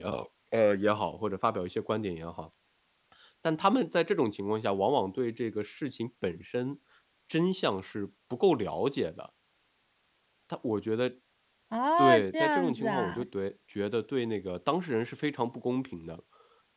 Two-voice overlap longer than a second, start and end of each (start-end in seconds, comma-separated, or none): 12.0-13.3